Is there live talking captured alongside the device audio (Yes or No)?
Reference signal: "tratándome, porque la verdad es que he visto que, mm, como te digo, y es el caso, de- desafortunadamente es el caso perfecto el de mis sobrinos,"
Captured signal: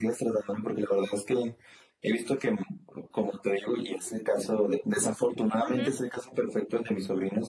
Yes